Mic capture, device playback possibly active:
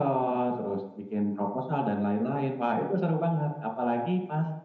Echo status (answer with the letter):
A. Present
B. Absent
A